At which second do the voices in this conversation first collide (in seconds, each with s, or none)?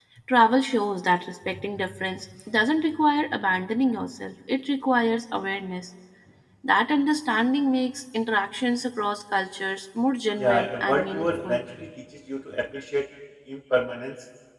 10.4 s